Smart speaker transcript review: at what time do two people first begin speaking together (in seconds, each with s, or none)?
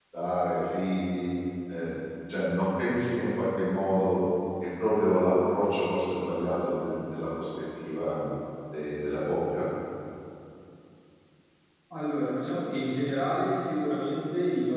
none